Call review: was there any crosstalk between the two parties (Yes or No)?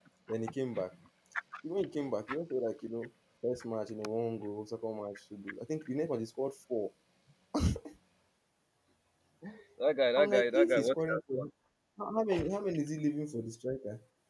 Yes